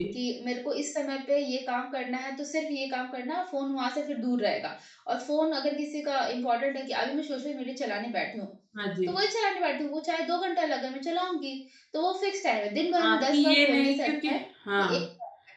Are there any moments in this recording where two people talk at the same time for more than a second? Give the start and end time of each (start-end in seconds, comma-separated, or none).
13.0-14.3